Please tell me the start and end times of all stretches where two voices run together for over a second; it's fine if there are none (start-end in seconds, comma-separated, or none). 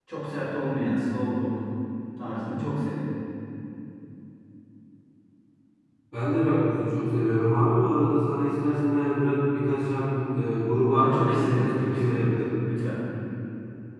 10.9-12.3